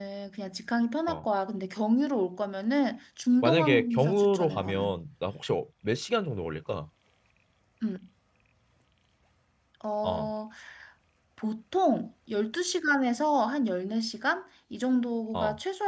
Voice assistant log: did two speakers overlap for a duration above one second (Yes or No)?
Yes